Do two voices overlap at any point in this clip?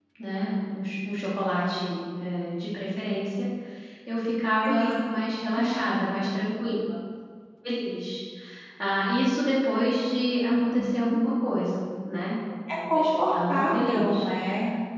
Yes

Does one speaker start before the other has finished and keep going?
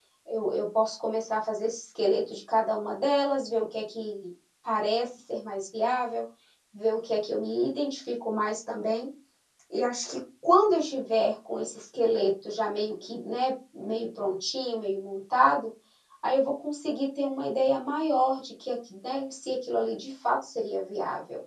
No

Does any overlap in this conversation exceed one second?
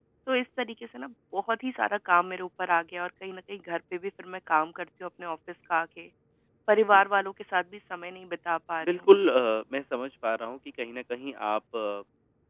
No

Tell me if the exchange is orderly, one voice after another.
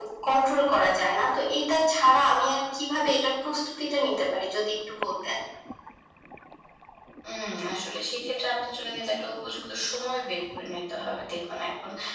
Yes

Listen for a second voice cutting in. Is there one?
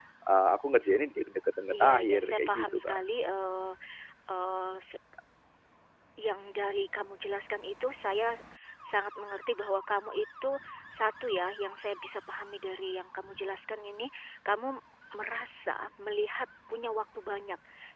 Yes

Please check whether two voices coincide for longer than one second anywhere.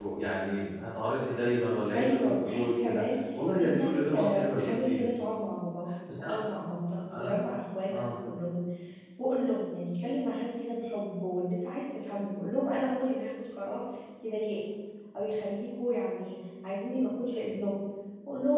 Yes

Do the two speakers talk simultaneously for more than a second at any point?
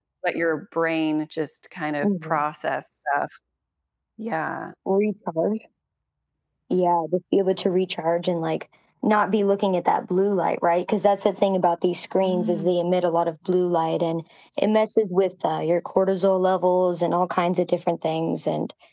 No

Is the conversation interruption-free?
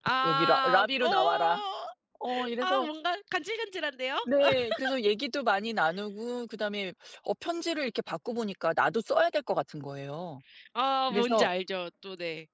No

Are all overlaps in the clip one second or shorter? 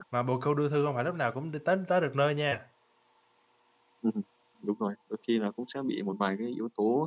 Yes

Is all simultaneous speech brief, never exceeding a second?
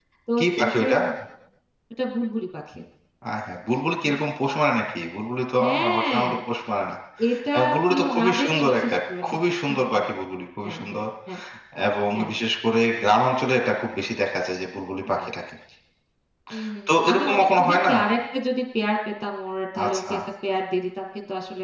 No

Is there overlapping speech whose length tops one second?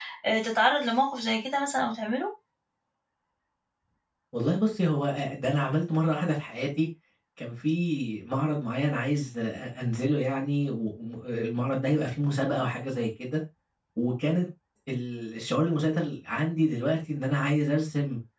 No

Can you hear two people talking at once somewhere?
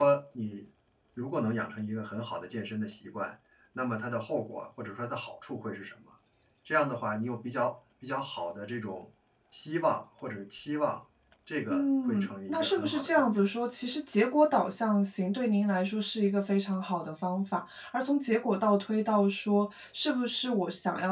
Yes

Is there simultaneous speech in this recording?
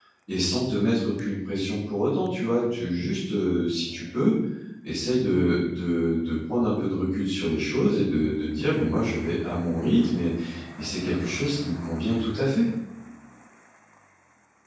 No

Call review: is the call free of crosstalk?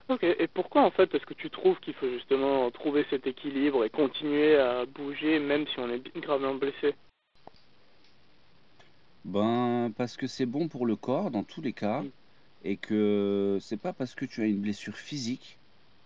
Yes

